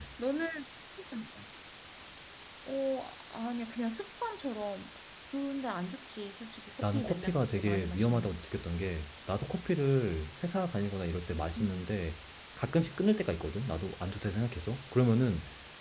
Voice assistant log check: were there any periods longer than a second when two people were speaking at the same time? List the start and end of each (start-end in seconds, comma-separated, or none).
6.9-8.4